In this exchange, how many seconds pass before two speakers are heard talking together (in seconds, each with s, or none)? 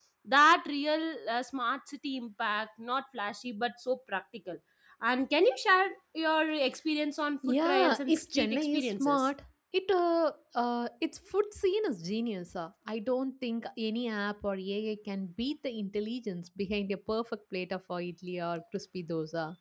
7.4 s